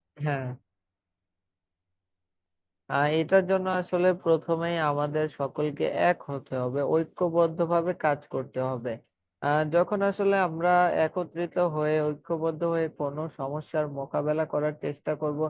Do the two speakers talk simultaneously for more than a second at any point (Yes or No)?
No